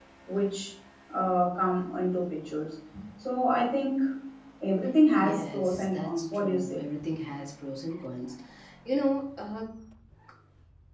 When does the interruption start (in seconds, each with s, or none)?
5.2 s